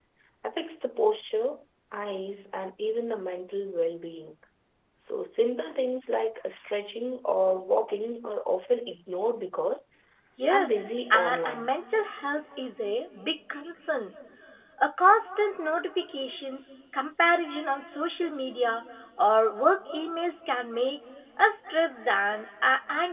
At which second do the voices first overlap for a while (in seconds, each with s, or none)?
10.5 s